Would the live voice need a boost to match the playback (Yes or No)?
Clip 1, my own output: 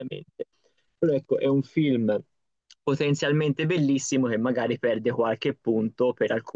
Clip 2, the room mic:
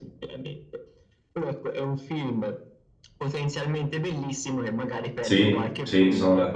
No